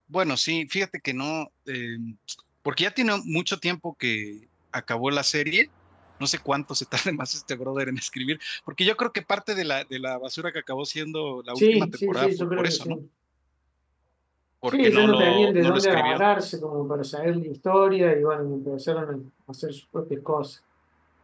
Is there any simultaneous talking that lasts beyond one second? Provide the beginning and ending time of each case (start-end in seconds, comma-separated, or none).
11.6-12.9, 14.7-16.2